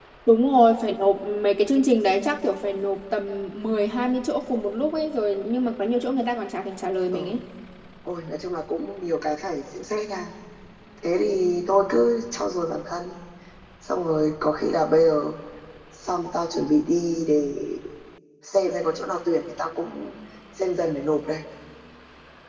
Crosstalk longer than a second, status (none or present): none